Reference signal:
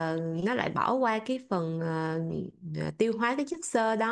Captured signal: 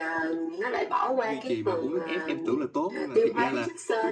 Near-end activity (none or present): present